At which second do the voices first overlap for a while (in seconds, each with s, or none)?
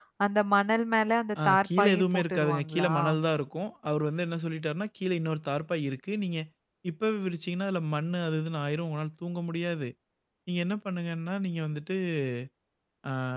1.4 s